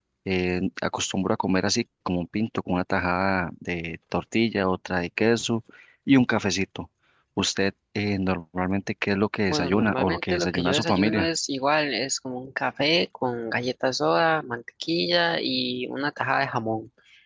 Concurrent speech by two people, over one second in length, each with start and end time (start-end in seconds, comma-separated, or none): 9.5-11.3